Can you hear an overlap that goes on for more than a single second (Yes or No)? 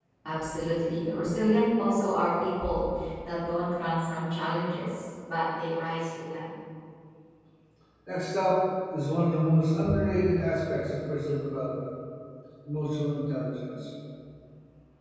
No